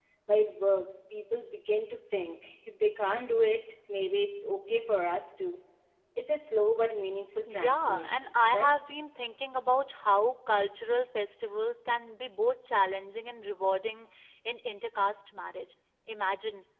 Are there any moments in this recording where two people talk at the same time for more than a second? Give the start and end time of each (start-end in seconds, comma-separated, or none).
7.5-8.7